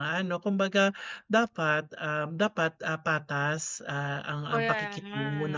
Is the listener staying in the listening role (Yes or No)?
Yes